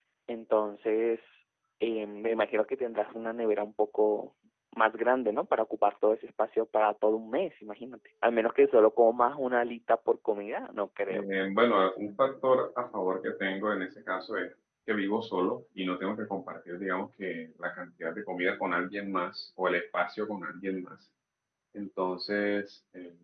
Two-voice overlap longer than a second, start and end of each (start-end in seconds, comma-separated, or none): none